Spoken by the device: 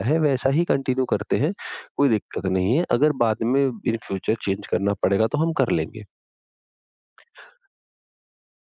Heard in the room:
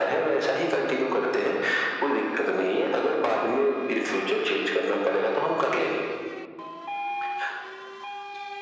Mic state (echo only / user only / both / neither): echo only